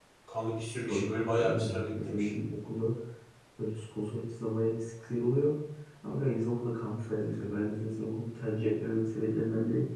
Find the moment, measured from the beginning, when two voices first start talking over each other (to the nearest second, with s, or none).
1 s